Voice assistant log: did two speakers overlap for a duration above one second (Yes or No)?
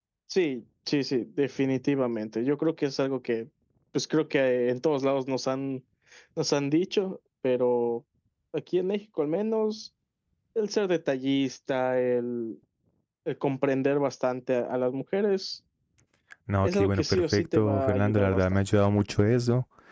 Yes